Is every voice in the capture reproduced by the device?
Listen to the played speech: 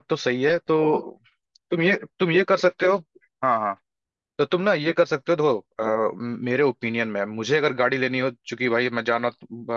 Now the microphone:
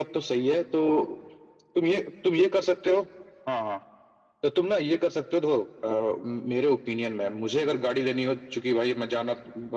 Yes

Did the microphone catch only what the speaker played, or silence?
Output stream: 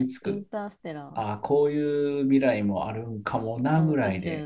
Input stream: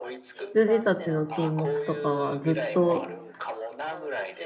No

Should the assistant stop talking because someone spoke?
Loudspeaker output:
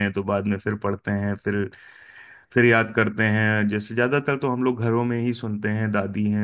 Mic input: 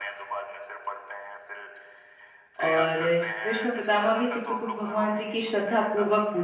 Yes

